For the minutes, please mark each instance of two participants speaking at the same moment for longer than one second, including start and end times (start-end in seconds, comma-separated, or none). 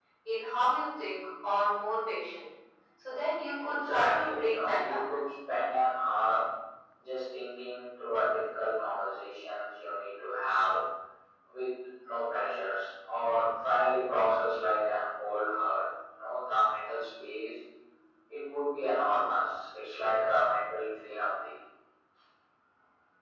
3.6-5.0